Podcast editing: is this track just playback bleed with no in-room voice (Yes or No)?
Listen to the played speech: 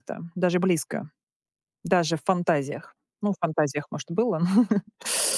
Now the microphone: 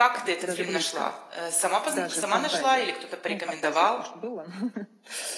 No